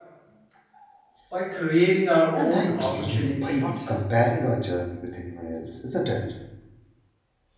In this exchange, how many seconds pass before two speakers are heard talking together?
2.3 s

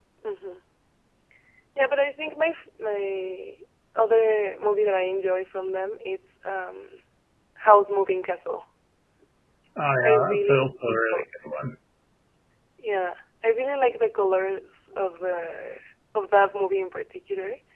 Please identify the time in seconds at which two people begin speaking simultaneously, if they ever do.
10.0 s

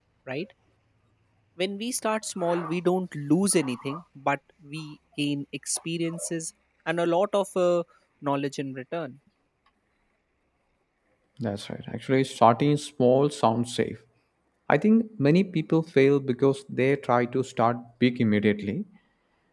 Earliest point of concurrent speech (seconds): none

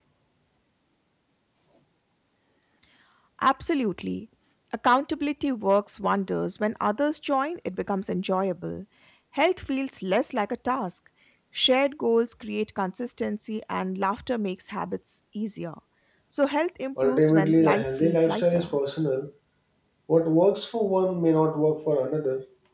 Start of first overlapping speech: 17.0 s

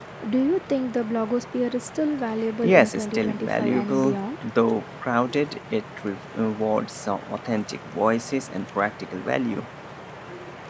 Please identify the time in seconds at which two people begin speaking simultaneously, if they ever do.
2.6 s

